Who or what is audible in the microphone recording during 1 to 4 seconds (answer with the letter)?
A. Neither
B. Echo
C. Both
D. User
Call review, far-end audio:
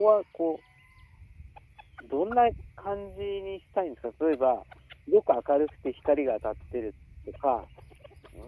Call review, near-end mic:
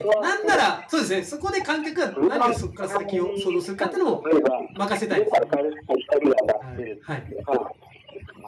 C